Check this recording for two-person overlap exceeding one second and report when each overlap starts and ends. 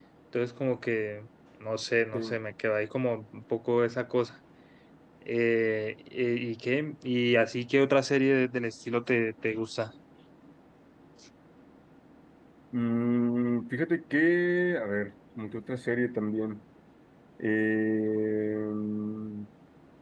none

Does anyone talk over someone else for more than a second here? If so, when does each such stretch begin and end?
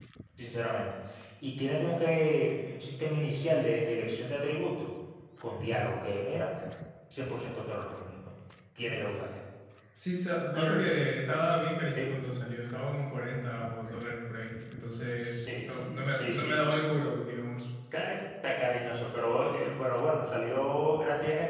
15.2-16.7

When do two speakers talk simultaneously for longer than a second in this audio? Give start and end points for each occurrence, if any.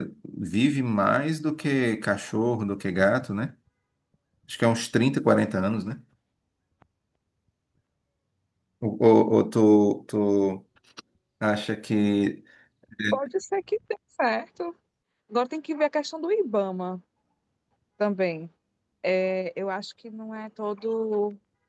none

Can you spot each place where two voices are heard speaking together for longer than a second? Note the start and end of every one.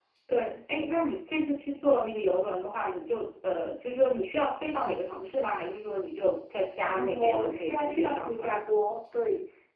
6.9-8.6

